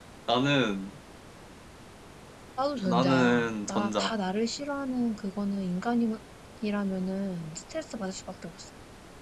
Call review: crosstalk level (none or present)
present